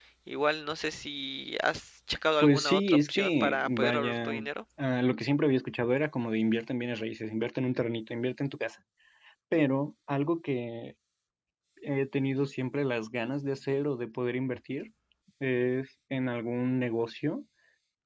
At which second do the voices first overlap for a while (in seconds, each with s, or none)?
2.4 s